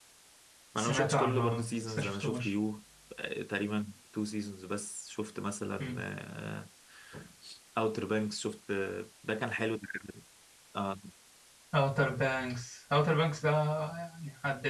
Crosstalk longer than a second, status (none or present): present